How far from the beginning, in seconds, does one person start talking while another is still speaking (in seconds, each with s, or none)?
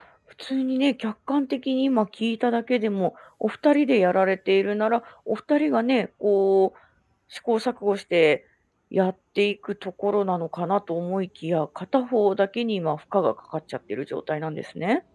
none